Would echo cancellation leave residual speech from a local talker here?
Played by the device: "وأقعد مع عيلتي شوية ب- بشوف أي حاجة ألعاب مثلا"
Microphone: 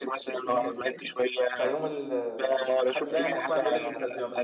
Yes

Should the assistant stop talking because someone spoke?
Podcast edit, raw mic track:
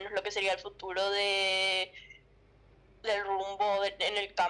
No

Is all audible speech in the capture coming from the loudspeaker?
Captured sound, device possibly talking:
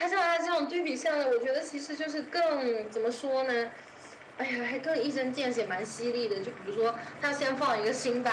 Yes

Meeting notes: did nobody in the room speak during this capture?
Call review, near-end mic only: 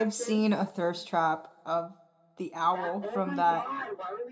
No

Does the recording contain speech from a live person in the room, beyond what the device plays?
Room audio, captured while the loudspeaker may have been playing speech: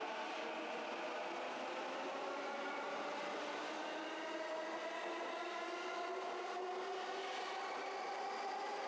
No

